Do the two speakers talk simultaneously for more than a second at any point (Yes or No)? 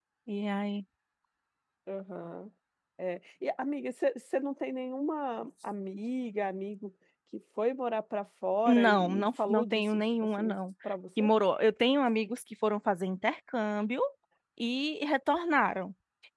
Yes